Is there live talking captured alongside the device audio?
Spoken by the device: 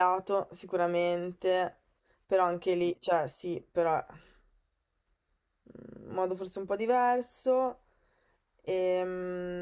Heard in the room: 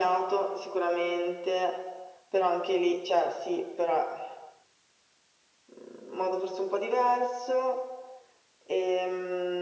No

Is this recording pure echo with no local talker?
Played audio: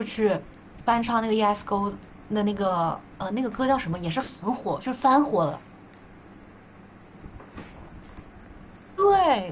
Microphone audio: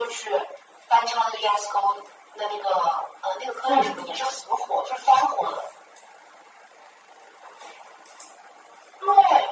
No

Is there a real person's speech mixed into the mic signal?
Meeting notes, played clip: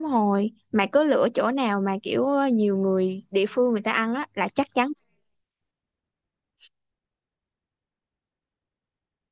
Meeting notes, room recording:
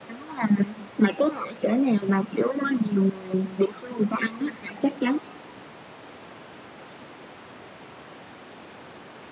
No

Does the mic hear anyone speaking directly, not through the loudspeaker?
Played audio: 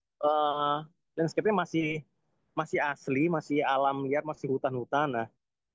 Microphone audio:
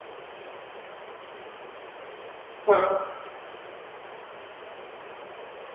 Yes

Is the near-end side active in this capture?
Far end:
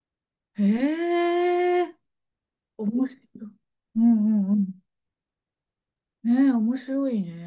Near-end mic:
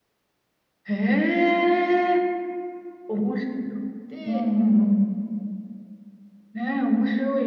Yes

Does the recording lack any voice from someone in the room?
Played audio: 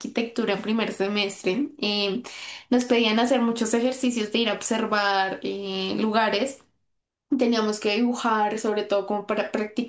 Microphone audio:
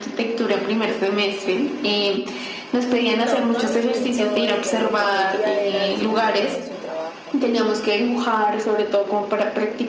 No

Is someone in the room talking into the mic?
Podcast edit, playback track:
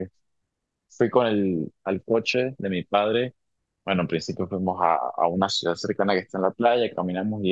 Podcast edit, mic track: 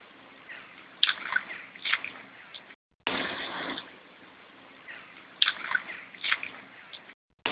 No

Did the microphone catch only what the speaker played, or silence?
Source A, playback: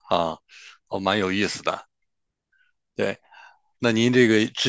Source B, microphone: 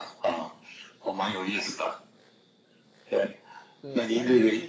No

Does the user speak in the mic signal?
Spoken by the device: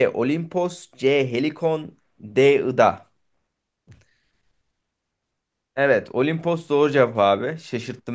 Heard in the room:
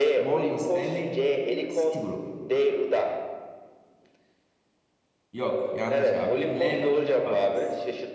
Yes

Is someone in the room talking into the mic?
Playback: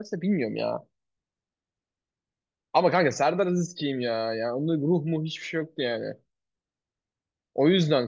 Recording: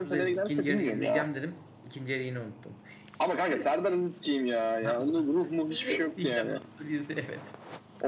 Yes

